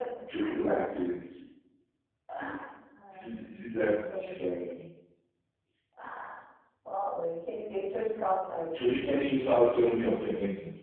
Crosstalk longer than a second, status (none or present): present